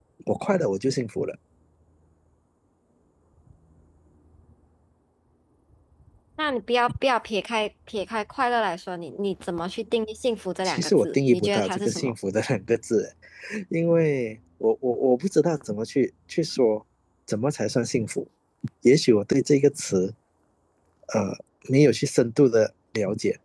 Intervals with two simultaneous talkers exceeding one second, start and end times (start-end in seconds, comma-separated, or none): 10.7-12.1